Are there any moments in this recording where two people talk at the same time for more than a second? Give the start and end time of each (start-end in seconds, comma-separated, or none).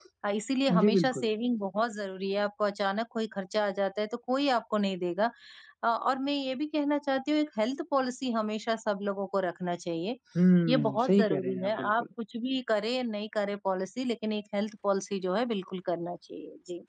10.7-12.0